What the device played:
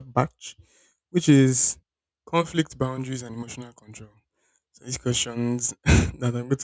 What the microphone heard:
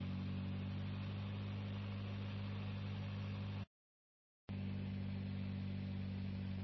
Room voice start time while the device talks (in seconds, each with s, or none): none